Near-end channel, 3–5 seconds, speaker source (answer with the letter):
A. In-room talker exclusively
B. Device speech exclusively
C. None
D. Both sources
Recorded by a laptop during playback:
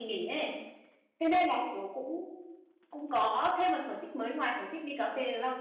A